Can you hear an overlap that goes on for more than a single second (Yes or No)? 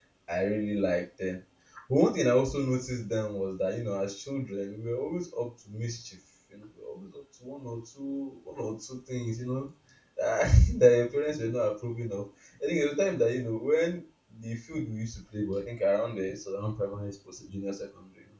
No